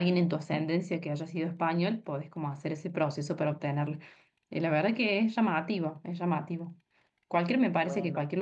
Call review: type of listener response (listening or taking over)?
listening